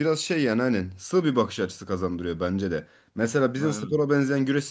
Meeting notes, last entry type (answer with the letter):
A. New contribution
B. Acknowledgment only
B